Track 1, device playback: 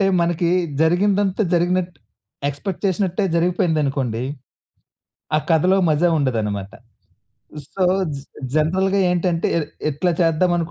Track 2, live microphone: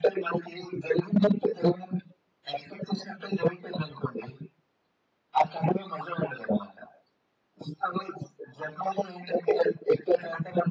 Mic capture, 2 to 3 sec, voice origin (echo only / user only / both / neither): echo only